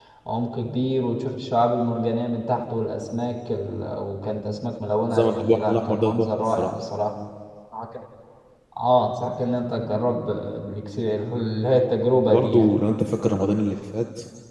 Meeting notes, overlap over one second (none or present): present